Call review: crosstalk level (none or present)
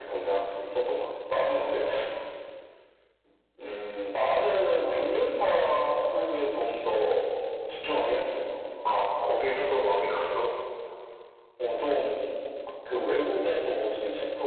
none